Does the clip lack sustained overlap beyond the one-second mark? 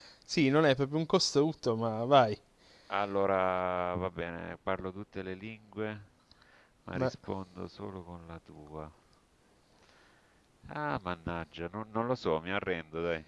Yes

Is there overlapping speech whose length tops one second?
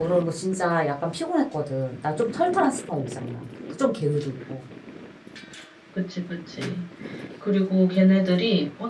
No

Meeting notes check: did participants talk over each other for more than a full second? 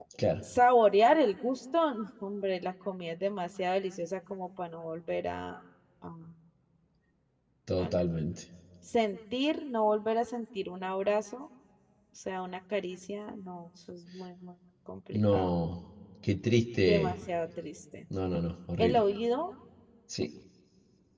No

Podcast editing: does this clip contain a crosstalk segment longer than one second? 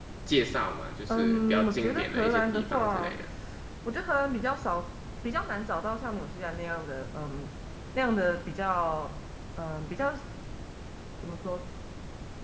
Yes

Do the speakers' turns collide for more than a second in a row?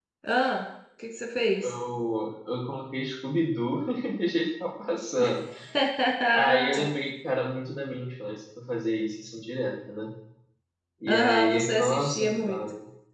Yes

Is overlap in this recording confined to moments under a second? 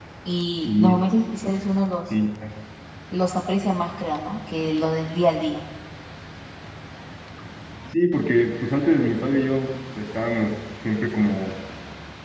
Yes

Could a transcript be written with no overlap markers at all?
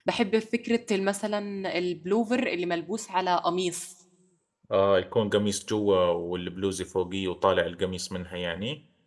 Yes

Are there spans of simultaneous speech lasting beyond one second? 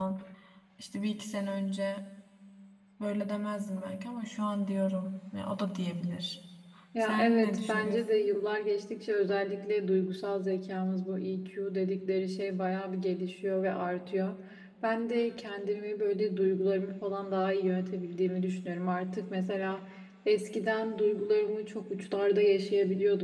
Yes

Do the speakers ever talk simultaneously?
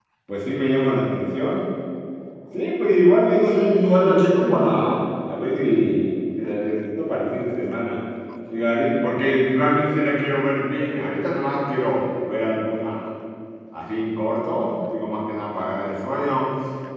Yes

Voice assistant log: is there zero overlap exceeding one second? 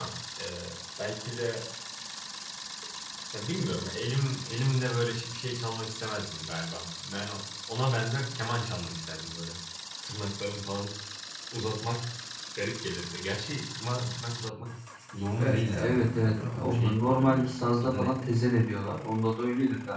No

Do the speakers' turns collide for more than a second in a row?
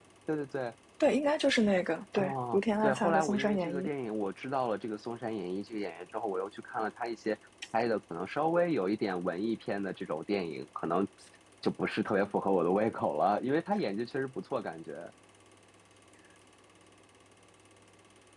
Yes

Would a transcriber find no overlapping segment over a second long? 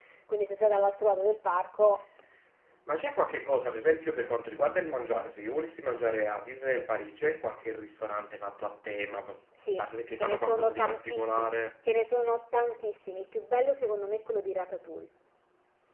No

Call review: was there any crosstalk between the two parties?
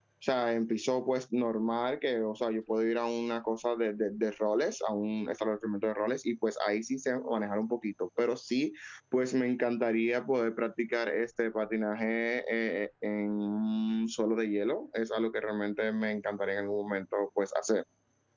No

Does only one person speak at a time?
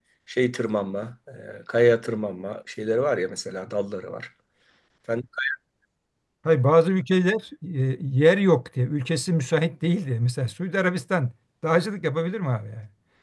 Yes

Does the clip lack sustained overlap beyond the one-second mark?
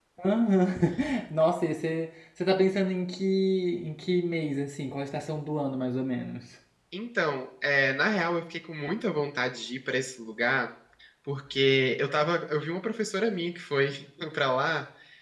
Yes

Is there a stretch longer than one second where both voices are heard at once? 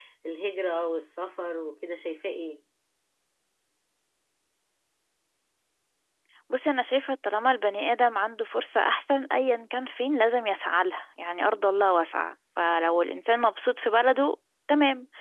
No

